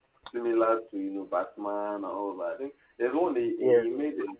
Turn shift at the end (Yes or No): No